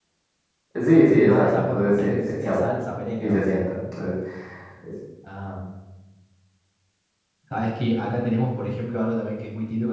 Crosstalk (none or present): present